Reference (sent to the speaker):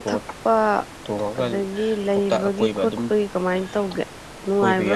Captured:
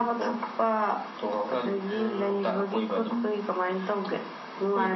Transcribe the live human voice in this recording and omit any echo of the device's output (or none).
ꯎꯝ